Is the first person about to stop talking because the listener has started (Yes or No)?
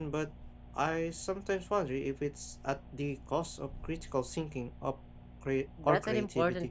Yes